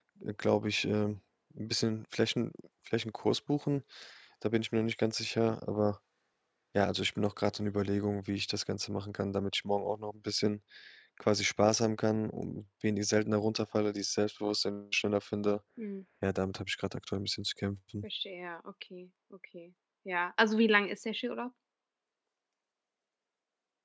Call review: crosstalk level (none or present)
none